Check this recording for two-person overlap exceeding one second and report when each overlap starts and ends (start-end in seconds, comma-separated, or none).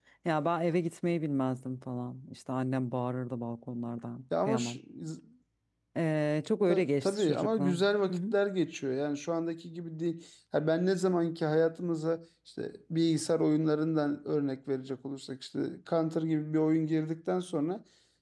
6.7-8.2